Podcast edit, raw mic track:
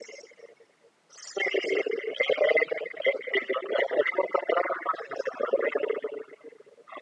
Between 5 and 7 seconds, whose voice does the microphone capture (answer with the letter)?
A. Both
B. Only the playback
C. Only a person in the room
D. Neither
B